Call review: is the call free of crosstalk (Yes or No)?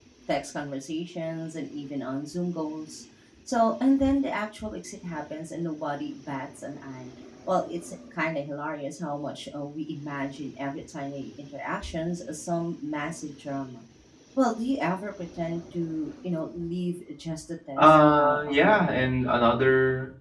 No